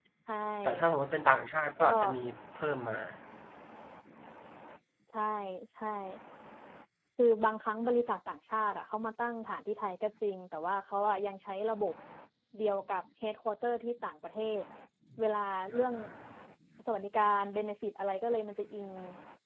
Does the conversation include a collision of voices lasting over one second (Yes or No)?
No